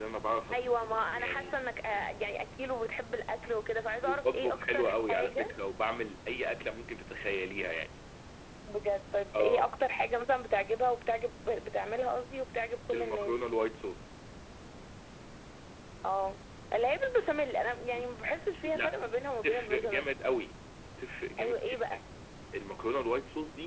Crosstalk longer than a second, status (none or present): present